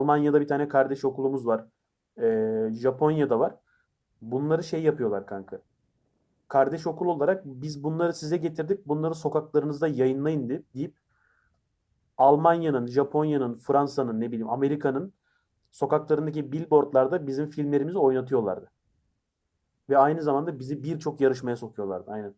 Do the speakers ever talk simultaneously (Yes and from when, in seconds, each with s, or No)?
No